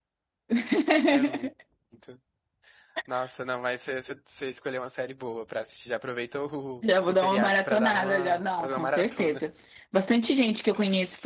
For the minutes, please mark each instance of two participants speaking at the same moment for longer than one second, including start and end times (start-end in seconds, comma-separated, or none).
6.8-9.4